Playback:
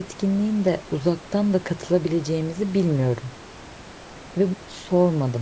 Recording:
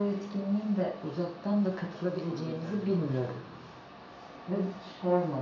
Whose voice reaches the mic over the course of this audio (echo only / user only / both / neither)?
both